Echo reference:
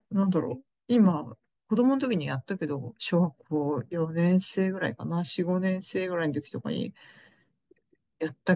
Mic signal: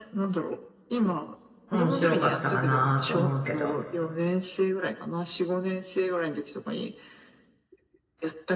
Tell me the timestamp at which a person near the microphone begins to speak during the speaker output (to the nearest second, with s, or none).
2 s